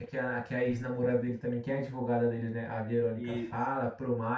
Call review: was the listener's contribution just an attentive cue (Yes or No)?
Yes